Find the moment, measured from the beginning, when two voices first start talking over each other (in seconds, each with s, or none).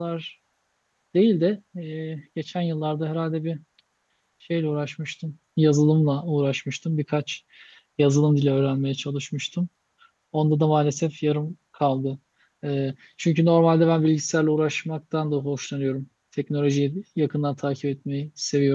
none